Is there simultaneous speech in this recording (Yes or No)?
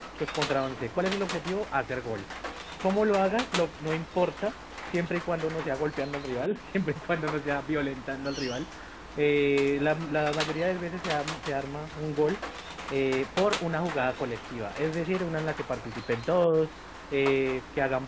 No